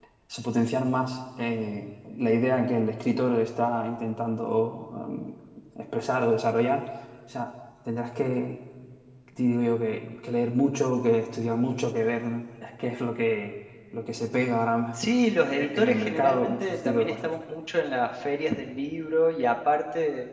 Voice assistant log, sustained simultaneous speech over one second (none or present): present